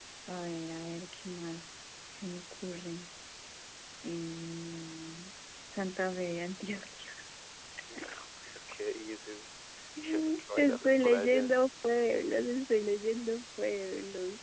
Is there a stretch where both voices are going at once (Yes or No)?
Yes